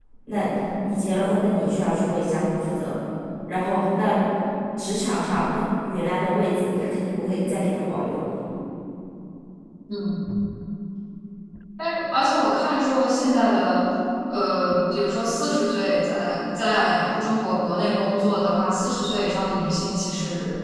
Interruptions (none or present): none